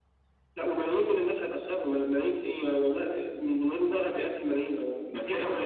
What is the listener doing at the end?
taking over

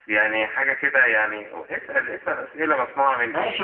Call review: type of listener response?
taking over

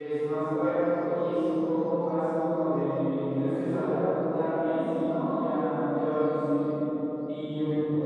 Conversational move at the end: listening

